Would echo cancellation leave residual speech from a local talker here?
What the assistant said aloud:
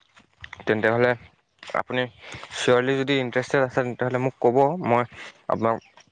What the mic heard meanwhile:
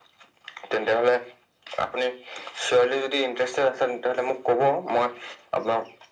No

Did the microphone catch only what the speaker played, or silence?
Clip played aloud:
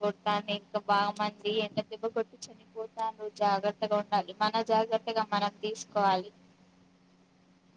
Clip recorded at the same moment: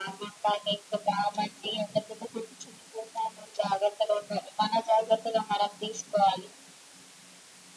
Yes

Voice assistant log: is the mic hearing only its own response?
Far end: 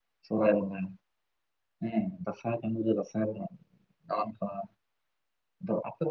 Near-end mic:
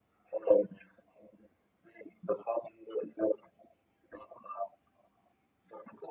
Yes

